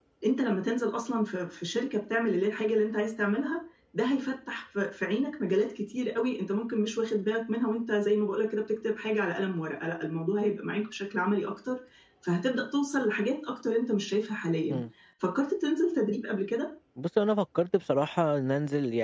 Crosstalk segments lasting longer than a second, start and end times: none

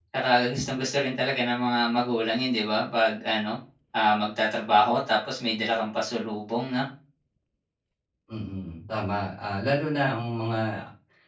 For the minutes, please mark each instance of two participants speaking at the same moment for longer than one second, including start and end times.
none

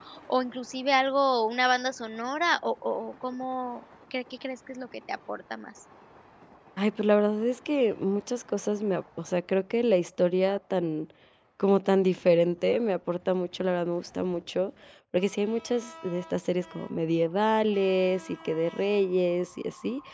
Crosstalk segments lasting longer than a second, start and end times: none

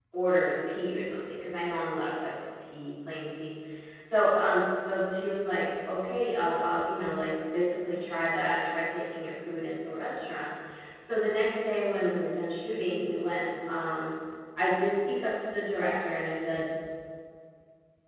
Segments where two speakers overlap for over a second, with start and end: none

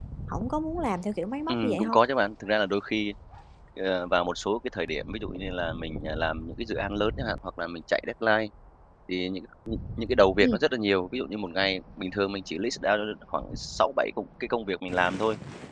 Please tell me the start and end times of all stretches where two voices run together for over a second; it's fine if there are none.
none

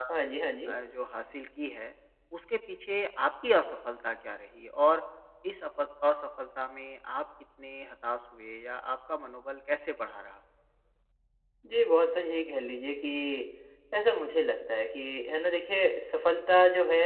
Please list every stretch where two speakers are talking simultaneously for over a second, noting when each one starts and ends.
none

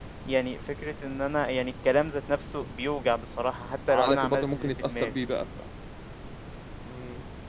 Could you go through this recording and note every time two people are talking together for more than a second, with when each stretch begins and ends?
3.9-5.1

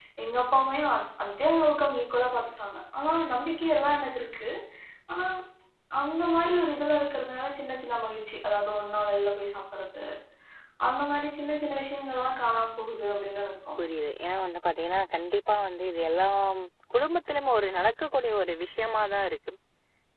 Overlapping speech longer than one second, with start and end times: none

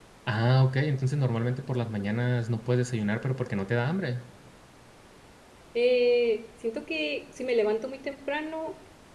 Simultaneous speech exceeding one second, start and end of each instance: none

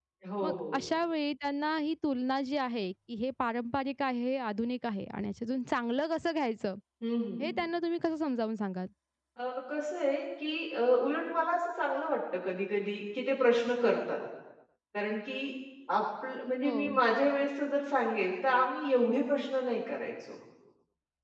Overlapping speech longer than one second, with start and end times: none

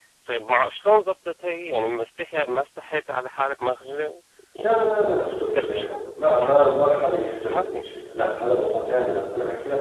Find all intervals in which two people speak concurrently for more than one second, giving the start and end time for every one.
4.6-6.8

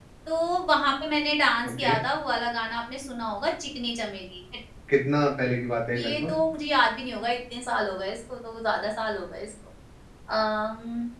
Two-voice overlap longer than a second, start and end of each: none

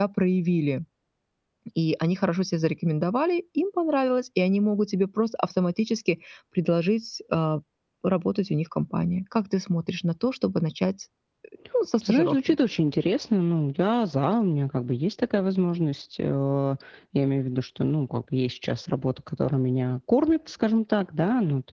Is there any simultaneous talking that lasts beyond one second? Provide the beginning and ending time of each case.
none

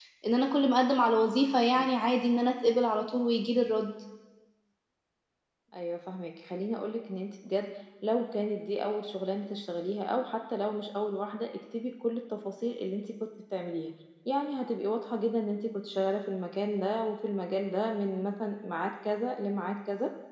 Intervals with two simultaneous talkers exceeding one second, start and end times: none

